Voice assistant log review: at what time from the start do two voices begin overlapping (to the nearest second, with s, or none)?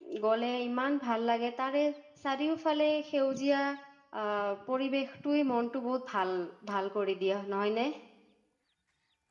none